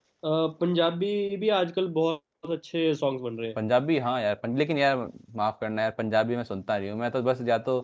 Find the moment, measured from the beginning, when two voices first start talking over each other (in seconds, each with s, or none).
none